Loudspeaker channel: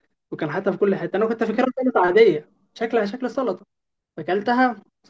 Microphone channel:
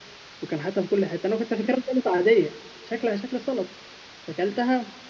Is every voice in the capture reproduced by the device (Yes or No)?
Yes